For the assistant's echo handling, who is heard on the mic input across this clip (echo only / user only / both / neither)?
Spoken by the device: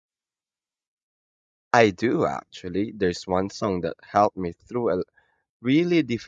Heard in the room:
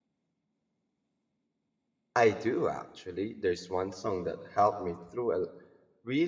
echo only